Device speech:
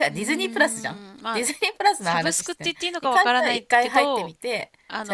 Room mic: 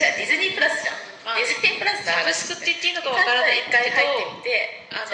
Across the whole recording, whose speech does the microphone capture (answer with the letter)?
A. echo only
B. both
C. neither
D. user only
A